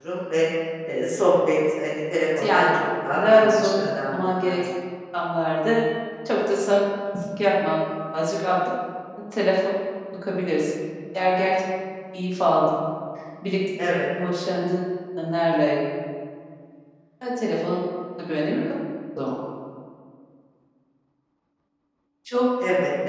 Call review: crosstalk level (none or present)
present